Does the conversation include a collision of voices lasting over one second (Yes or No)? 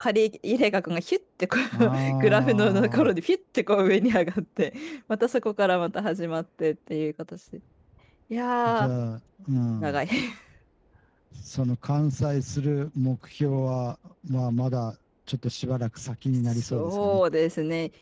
Yes